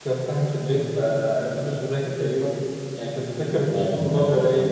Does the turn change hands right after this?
No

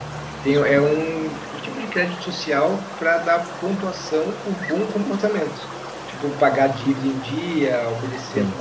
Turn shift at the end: No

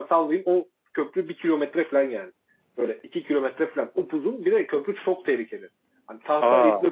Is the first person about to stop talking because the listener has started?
No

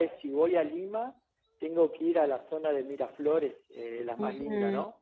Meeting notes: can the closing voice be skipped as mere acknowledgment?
No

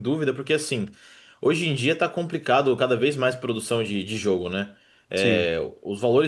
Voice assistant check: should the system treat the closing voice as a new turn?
No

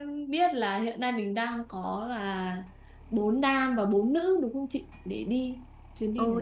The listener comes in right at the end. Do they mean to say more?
Yes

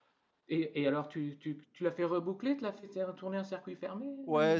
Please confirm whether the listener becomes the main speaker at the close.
Yes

